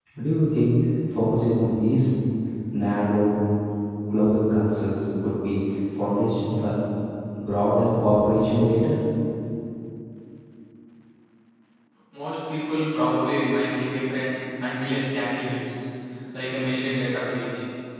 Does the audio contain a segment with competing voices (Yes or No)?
No